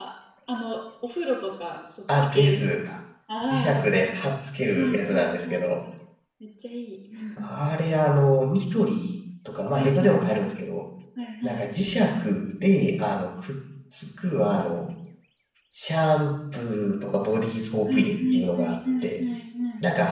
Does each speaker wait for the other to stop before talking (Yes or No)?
No